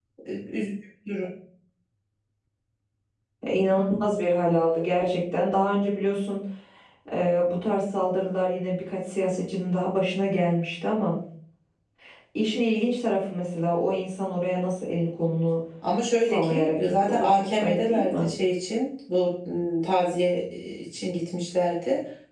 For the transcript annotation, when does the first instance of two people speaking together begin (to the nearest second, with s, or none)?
16 s